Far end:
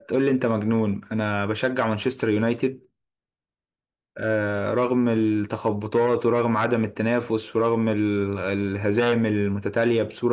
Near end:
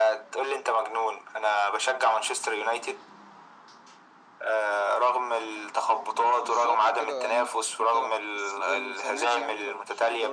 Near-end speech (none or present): present